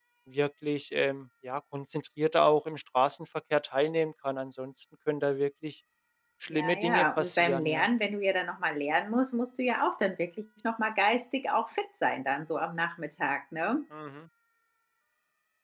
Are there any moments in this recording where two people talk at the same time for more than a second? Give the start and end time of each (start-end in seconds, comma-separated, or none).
6.5-7.8